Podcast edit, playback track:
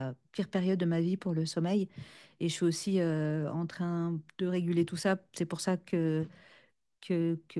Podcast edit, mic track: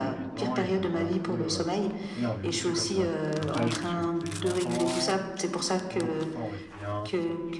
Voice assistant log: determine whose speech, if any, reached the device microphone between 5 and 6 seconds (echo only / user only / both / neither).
both